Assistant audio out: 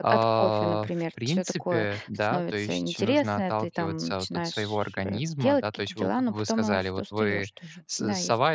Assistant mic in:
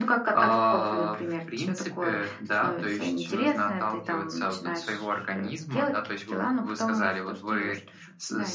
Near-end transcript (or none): none